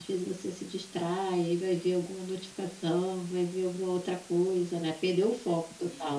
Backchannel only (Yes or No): No